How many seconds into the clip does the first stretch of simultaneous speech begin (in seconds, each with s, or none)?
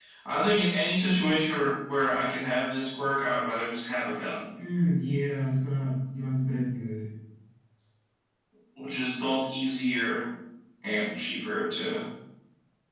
none